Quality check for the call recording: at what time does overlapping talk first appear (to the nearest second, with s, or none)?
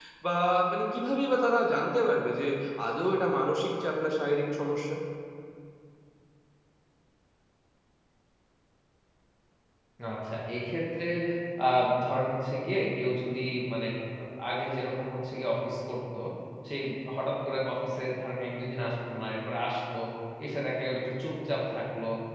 none